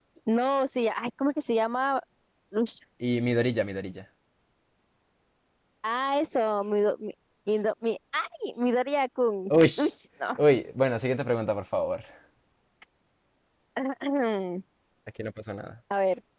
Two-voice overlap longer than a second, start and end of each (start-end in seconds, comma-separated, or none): none